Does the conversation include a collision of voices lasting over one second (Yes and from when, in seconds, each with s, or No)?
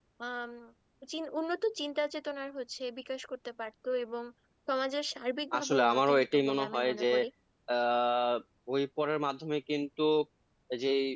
Yes, from 5.6 s